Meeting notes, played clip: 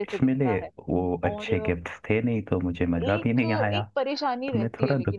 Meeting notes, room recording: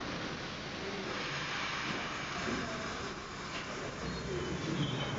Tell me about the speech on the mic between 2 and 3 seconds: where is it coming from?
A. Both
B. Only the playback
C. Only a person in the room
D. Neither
D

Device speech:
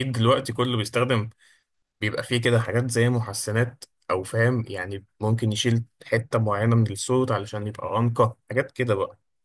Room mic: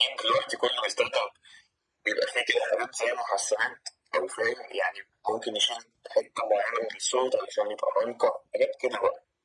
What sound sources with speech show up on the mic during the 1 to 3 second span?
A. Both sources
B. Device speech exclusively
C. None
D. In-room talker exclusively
B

